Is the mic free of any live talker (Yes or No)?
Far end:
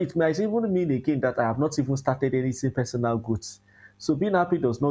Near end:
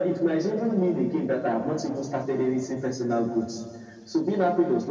Yes